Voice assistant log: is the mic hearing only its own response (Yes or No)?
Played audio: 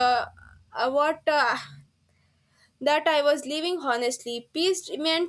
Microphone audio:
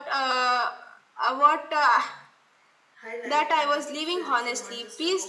No